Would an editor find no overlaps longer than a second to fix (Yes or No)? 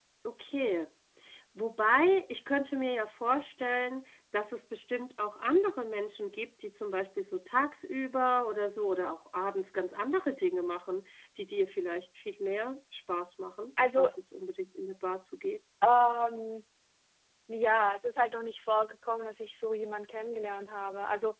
Yes